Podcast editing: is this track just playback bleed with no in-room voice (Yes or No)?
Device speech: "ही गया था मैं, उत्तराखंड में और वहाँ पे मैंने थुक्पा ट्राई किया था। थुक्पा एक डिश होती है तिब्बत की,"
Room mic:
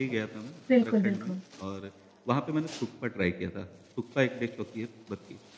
No